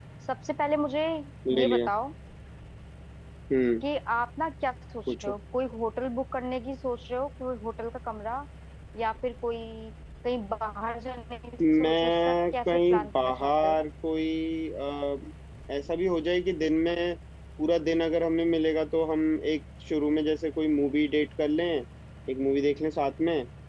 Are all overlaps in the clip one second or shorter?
No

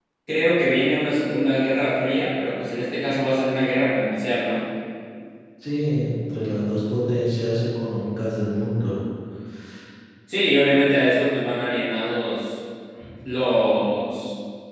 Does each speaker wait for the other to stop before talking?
Yes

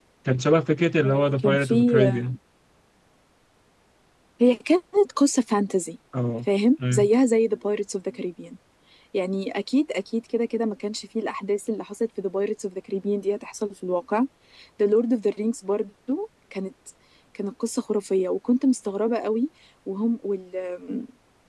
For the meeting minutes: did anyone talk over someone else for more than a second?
Yes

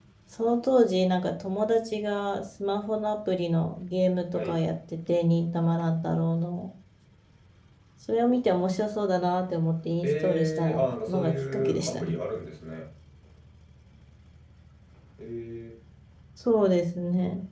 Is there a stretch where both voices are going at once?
Yes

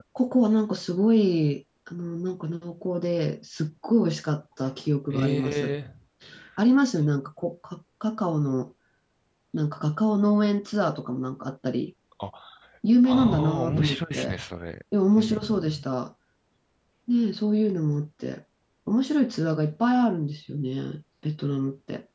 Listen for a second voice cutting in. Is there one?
Yes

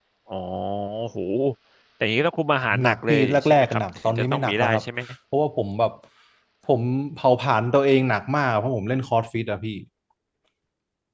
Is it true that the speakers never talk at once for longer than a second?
No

